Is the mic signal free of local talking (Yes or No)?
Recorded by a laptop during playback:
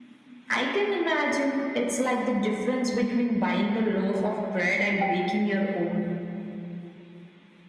Yes